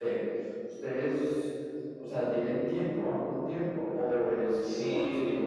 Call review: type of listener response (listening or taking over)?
taking over